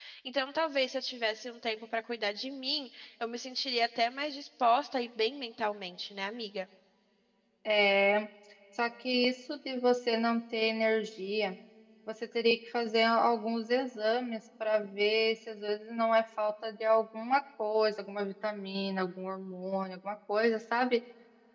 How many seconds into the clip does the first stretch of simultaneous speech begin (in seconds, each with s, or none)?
none